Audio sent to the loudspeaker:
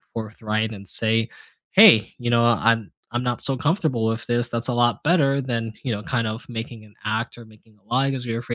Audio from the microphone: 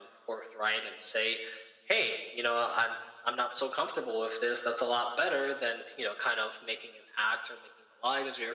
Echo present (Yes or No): Yes